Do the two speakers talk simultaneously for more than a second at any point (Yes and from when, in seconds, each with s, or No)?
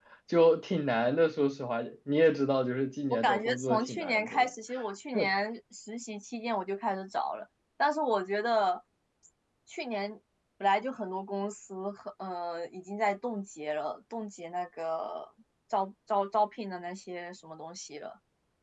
Yes, from 3.1 s